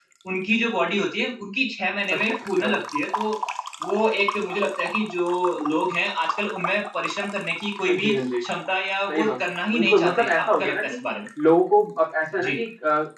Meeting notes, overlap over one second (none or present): present